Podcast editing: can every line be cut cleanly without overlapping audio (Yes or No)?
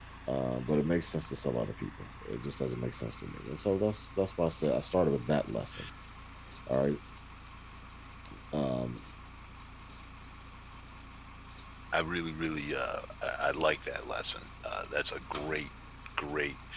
Yes